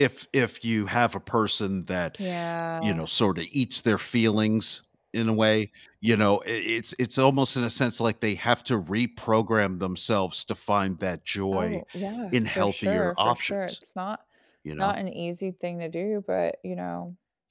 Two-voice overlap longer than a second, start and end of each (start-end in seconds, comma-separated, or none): 12.3-13.7